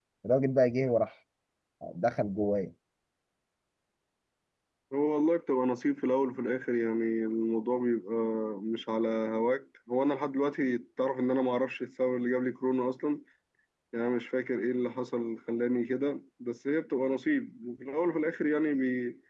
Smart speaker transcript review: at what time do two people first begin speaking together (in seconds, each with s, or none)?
none